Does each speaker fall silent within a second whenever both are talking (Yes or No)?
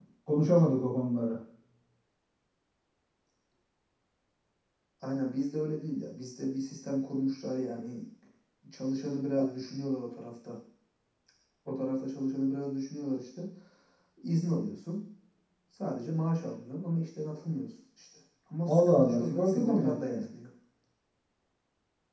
No